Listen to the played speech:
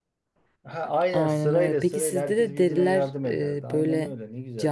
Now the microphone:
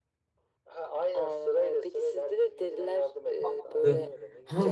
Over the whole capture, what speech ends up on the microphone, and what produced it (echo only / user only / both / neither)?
both